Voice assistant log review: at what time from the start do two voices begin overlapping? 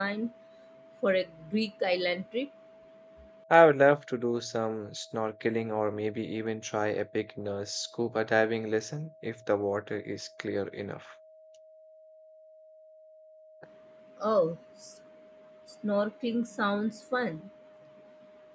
none

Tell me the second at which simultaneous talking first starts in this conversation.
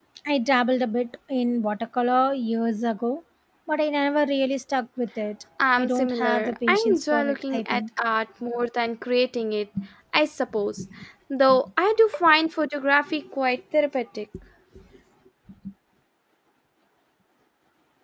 5.6 s

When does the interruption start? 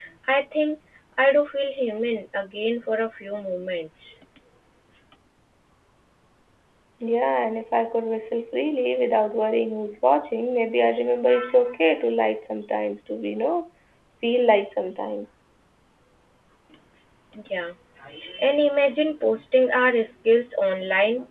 none

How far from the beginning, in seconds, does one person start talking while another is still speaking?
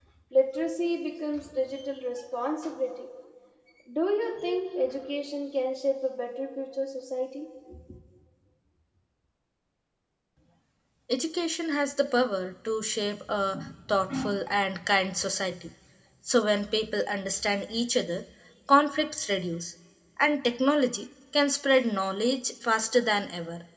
none

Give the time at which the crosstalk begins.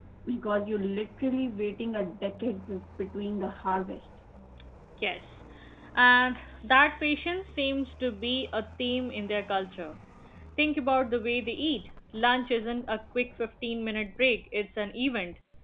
none

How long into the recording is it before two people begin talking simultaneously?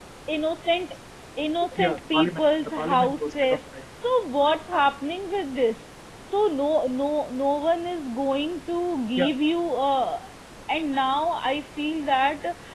1.8 s

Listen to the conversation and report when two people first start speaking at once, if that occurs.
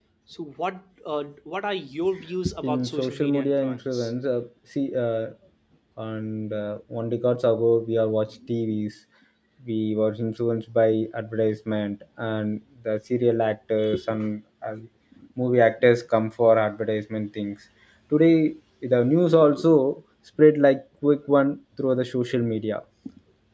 2.5 s

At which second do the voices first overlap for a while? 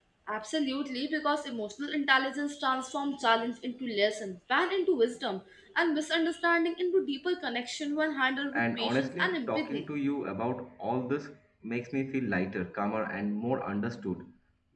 8.5 s

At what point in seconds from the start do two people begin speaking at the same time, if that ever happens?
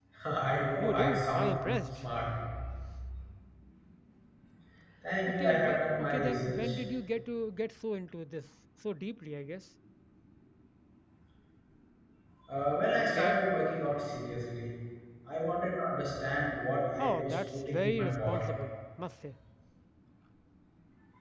0.8 s

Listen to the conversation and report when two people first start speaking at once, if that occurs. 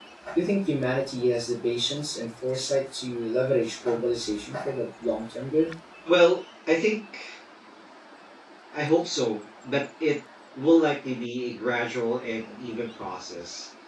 none

